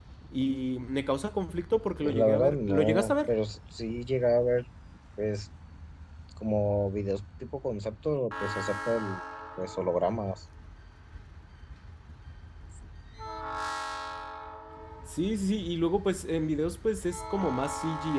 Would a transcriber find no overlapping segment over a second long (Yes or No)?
No